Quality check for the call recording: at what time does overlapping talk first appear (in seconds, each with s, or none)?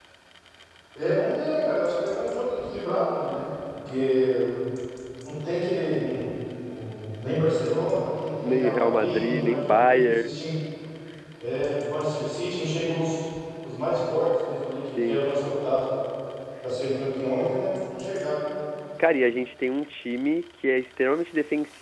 8.4 s